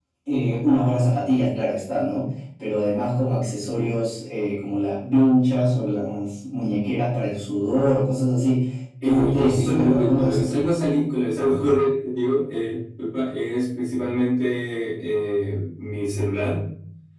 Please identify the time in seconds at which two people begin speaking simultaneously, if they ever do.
9.0 s

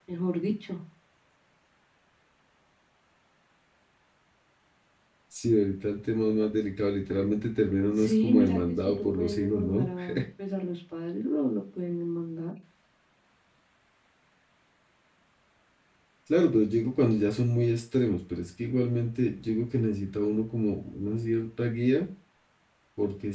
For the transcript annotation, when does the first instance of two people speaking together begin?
8.0 s

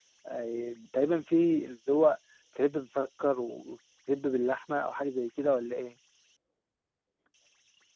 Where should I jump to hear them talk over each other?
none

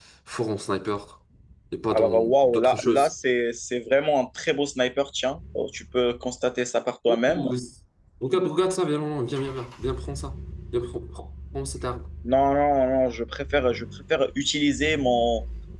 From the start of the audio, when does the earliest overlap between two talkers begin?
1.9 s

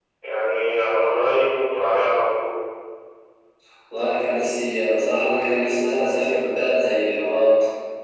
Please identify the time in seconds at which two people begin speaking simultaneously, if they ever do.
none

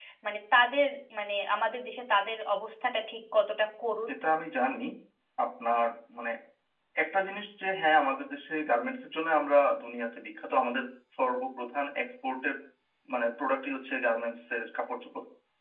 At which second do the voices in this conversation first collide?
none

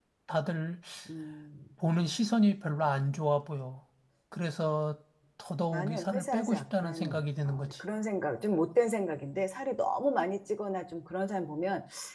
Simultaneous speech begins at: 5.7 s

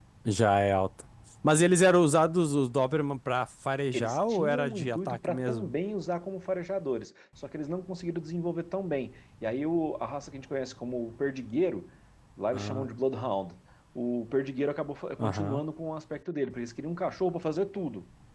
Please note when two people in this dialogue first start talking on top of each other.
3.9 s

